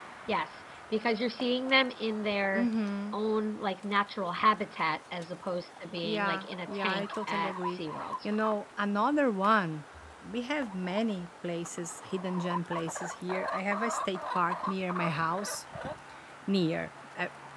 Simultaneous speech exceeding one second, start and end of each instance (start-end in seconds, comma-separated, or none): 6.0-7.8